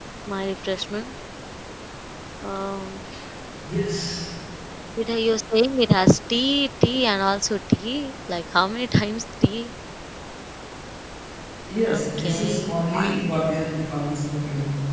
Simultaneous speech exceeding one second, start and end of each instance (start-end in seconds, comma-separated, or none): 11.9-13.2